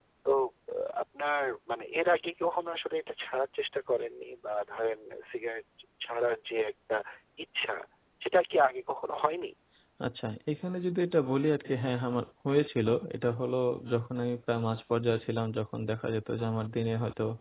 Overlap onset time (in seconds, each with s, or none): none